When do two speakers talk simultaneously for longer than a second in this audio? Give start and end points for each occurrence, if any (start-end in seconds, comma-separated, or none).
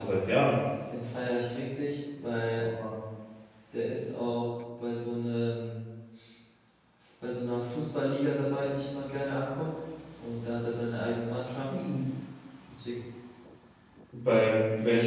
none